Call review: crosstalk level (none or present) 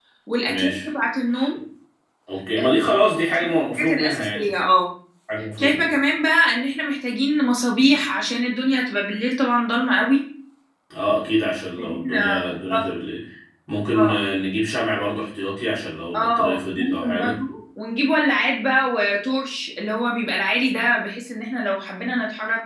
present